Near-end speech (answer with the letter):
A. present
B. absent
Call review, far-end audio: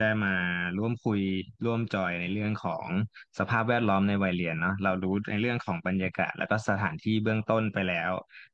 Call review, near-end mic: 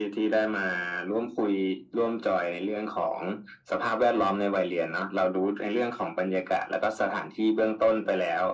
B